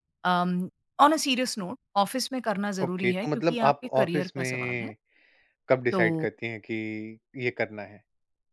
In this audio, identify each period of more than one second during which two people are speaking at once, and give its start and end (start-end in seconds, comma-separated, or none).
2.8-4.9